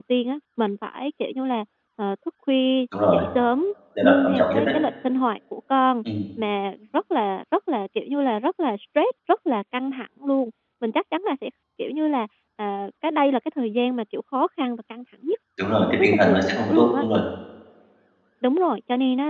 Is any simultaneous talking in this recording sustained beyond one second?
Yes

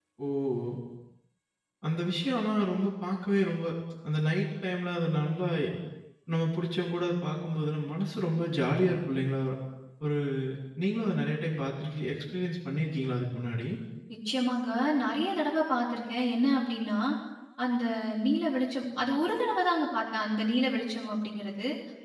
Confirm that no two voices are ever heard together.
Yes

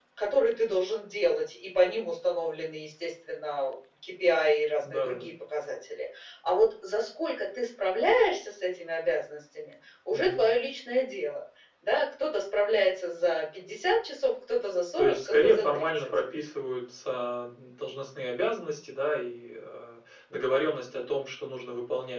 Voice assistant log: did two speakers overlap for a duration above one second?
Yes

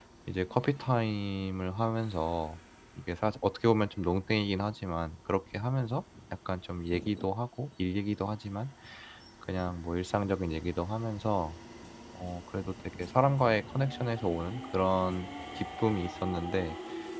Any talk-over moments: No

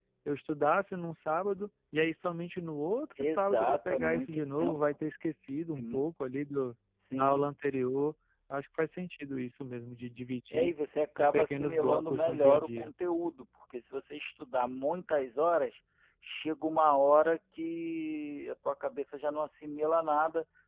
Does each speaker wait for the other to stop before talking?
No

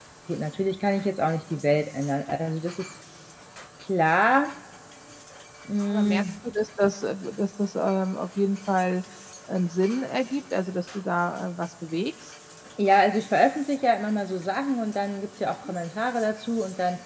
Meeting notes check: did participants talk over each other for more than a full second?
No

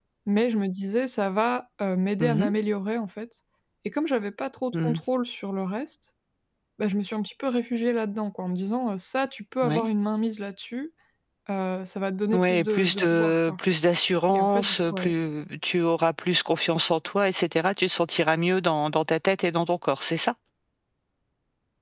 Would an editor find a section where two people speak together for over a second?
Yes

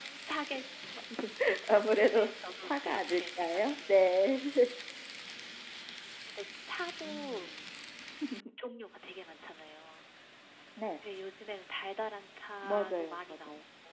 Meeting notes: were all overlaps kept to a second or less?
No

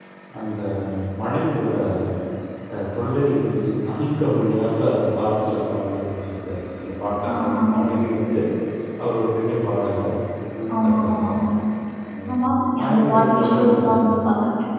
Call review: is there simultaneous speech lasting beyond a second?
Yes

